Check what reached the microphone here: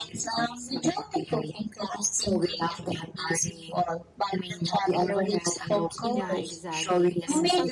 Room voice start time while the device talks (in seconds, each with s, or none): 6.1 s